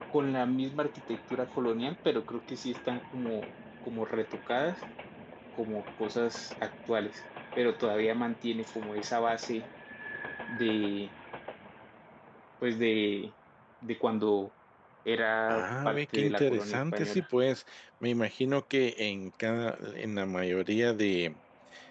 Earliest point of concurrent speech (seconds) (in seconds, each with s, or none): 15.5 s